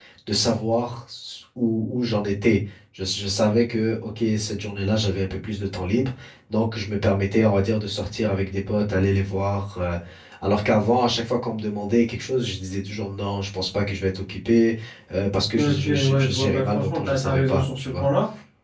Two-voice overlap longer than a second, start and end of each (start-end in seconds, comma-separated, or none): 15.6-18.1